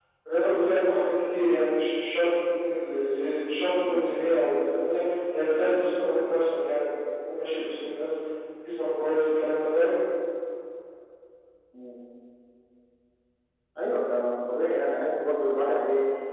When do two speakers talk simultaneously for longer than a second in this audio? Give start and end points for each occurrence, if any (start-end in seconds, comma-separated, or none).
none